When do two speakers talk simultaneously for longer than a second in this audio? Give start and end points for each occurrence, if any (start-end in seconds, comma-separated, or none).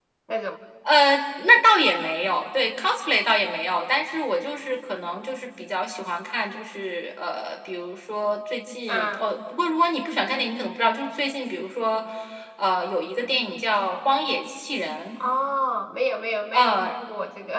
none